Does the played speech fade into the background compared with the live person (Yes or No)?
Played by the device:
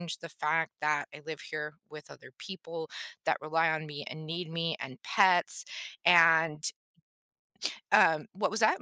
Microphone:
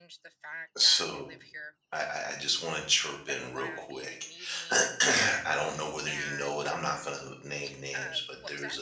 Yes